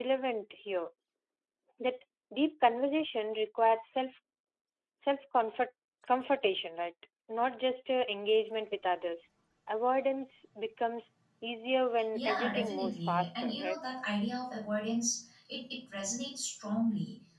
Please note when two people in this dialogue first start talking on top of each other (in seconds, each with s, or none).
12.1 s